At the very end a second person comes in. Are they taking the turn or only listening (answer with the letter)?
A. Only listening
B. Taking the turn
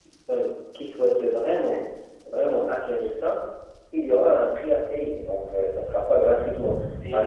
A